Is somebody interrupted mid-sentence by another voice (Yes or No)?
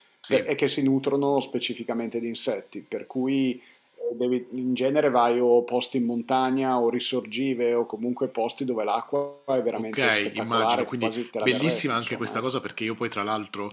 Yes